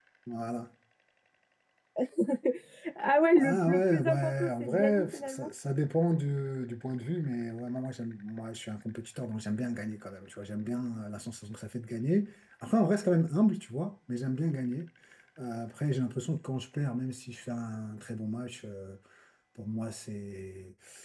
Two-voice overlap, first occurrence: 3.4 s

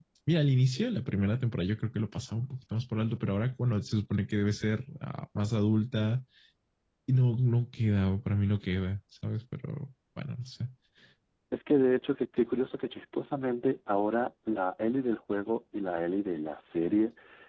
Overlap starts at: none

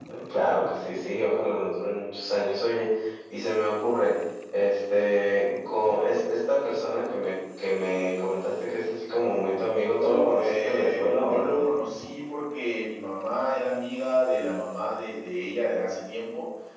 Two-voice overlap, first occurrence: 9.9 s

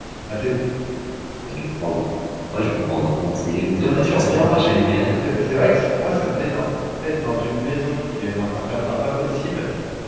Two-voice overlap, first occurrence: 3.8 s

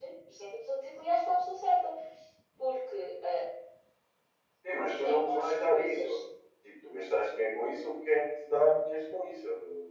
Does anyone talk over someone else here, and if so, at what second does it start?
4.9 s

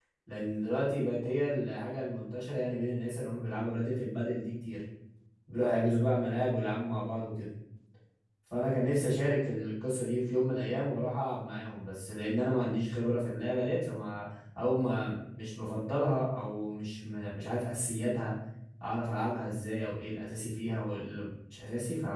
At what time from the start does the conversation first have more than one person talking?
none

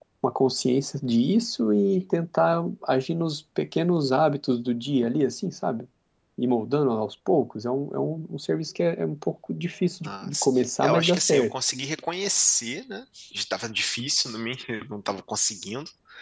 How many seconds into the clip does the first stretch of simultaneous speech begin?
10.0 s

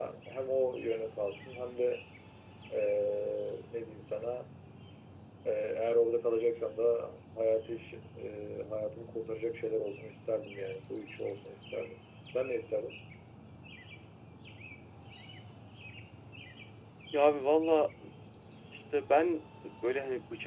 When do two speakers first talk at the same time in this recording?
none

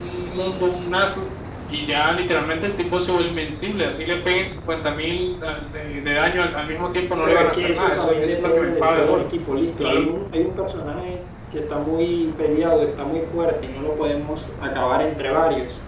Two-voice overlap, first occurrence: 7.2 s

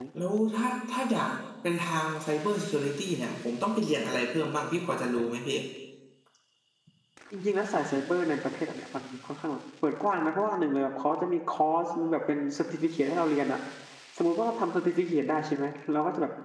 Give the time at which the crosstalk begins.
none

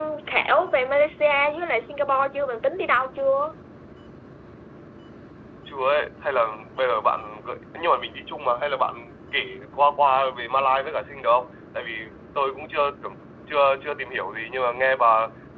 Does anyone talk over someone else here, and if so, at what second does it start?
none

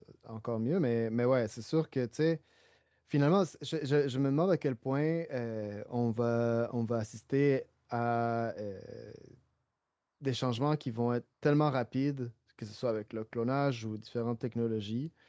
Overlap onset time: none

